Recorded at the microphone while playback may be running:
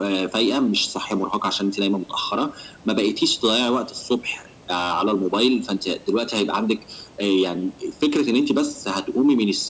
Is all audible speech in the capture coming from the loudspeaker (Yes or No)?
Yes